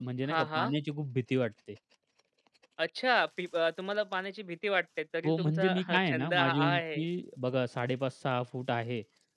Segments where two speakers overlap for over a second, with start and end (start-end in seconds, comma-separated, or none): 5.2-7.0